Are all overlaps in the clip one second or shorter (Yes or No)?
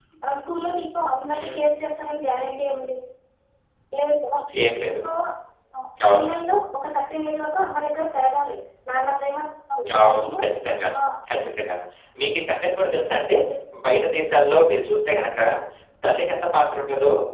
Yes